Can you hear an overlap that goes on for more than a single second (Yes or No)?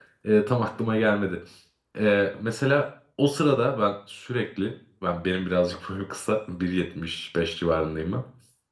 No